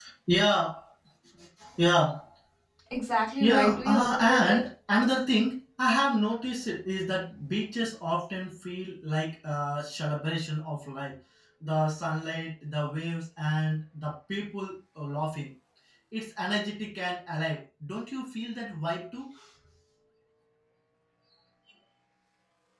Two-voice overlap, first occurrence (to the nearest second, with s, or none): 3 s